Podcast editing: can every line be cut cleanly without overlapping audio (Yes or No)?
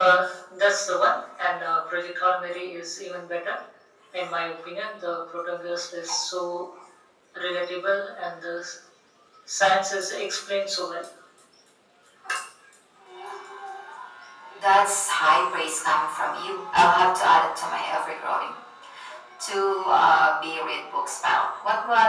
Yes